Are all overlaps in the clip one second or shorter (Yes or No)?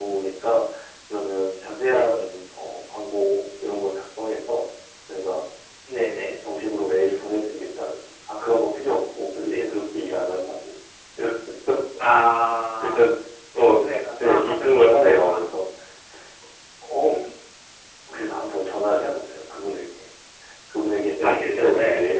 No